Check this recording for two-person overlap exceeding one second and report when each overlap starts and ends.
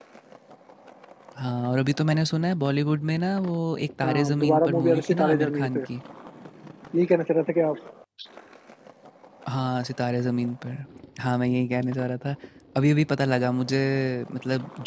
4.0-5.8

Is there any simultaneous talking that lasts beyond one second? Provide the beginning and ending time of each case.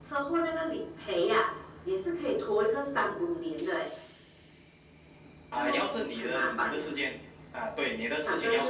5.5-6.8

